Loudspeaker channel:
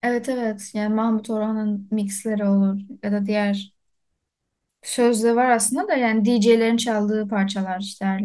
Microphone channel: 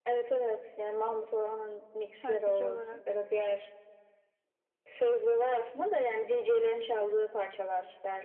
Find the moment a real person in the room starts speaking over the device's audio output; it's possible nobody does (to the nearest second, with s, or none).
2 s